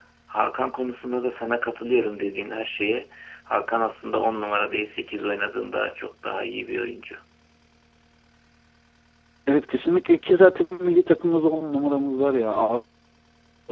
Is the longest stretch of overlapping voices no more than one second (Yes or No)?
Yes